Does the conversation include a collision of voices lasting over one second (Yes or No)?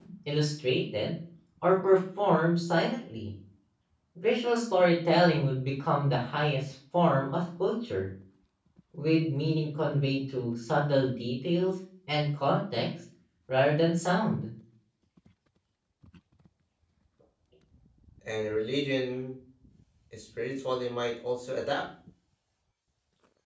No